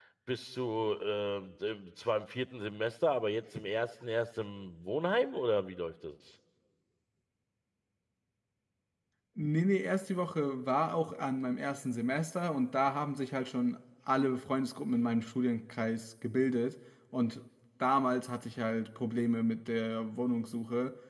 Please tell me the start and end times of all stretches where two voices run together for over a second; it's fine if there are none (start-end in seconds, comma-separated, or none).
none